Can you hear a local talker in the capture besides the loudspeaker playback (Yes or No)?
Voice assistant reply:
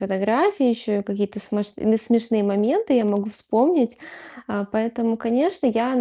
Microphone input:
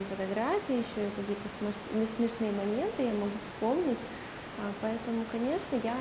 No